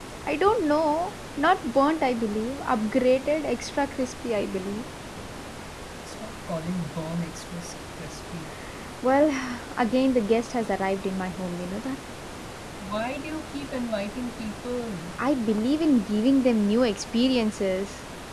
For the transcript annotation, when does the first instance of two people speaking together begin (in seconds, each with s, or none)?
none